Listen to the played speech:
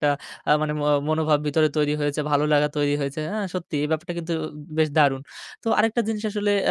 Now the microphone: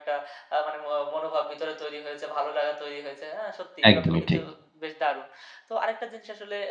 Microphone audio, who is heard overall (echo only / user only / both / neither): both